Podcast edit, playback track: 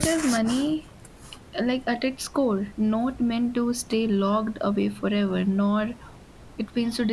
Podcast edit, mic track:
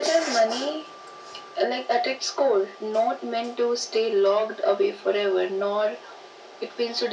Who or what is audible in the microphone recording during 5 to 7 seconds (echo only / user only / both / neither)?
echo only